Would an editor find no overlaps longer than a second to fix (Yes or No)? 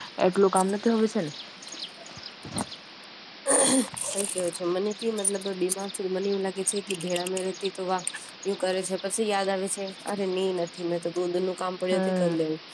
Yes